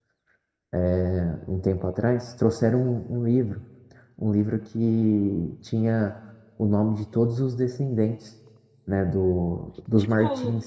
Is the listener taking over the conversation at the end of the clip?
Yes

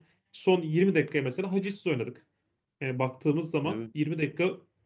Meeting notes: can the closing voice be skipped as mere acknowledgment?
Yes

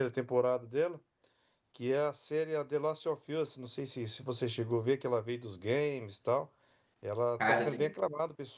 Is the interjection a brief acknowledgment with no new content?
Yes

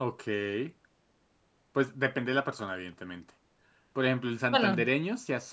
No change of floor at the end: Yes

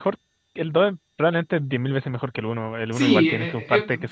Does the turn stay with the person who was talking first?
No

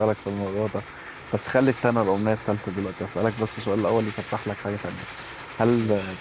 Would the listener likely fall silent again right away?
Yes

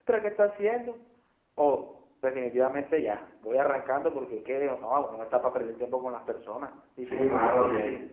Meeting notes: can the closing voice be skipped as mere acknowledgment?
No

